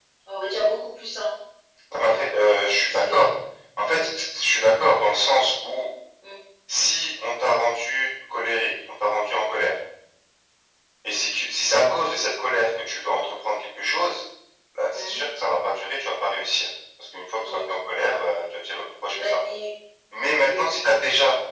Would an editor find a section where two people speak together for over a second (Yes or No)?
No